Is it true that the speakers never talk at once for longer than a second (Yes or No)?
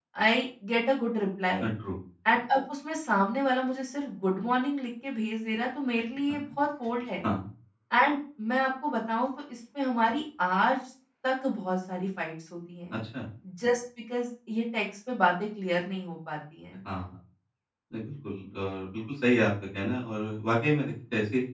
Yes